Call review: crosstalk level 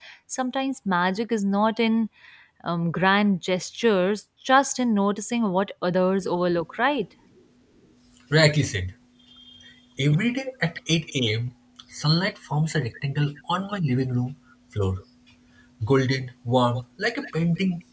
none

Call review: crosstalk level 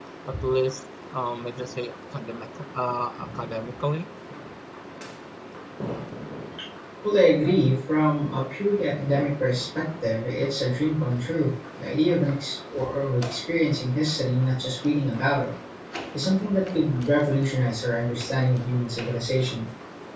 none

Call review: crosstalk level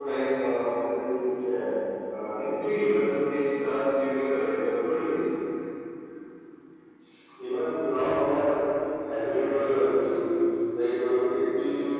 none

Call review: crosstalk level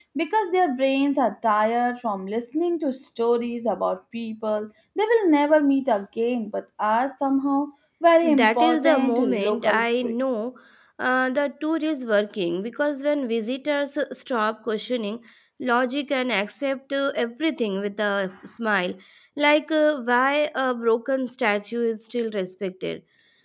present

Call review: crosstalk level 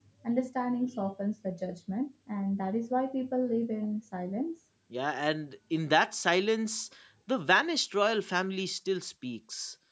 none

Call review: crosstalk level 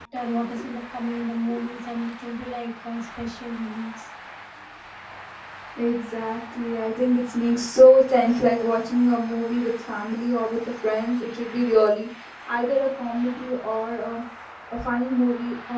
none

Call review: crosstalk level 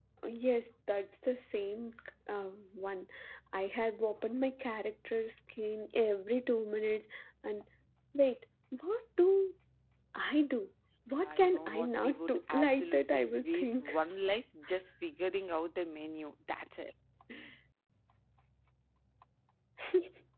present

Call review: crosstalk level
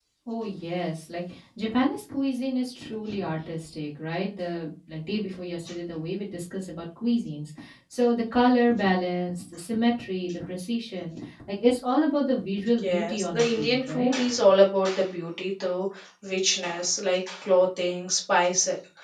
present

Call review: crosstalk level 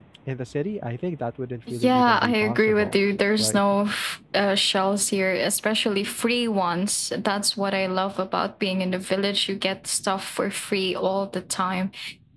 present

